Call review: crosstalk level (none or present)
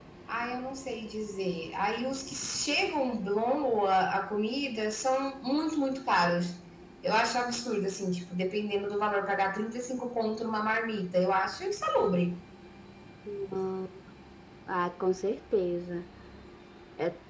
none